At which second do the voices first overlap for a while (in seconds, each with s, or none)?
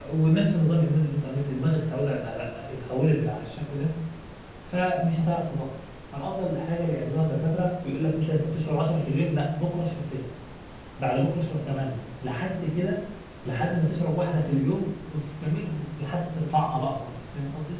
none